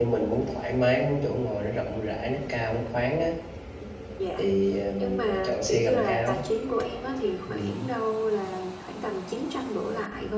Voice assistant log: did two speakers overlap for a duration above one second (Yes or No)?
Yes